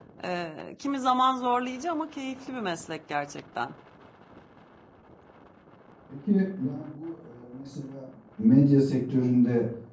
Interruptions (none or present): none